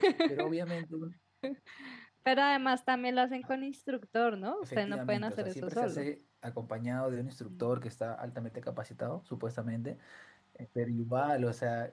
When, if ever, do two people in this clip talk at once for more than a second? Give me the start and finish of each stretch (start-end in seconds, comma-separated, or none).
4.6-6.0